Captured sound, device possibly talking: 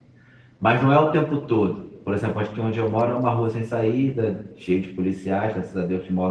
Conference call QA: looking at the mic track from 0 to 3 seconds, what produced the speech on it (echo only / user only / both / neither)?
user only